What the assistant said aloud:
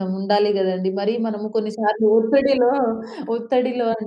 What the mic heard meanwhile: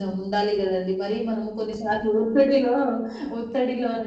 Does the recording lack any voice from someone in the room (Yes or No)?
Yes